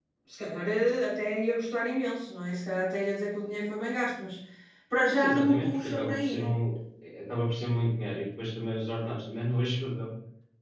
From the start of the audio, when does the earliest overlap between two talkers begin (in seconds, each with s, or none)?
5.1 s